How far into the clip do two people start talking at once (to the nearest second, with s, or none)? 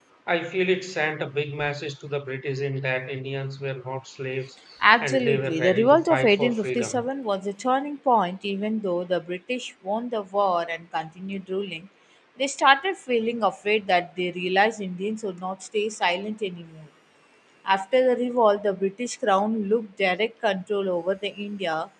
5 s